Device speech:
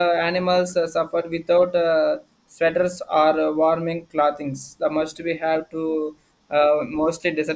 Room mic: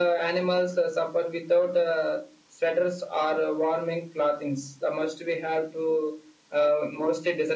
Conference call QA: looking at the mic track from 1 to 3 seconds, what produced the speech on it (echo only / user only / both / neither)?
echo only